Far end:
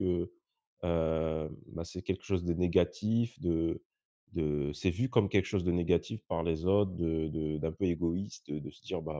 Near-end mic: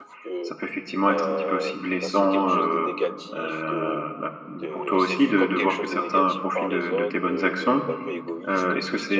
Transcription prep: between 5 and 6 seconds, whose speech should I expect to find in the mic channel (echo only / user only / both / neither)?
both